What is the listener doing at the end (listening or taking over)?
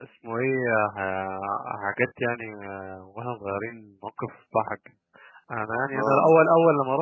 listening